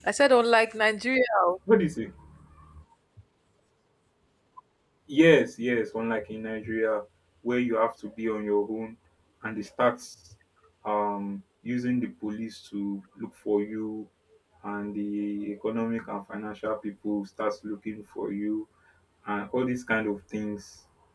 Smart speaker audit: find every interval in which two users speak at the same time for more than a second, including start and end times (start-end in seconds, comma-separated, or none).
none